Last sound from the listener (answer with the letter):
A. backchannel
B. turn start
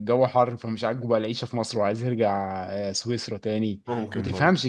A